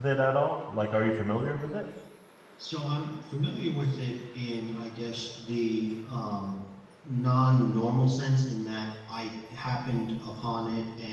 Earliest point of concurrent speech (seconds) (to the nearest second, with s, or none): none